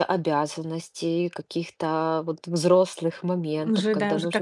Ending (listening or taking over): taking over